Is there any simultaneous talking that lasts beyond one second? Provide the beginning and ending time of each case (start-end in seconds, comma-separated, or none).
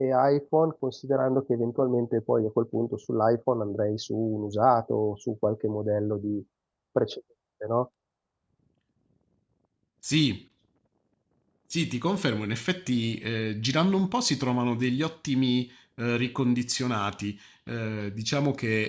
none